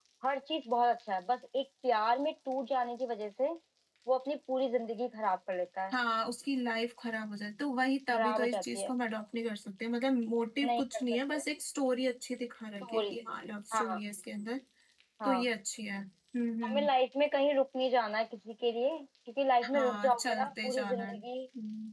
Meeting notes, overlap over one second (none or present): present